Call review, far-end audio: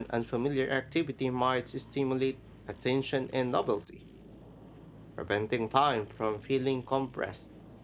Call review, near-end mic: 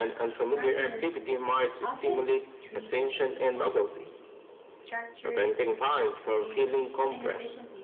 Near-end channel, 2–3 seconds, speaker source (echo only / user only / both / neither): both